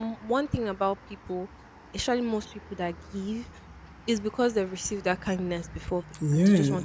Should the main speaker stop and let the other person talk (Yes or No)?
Yes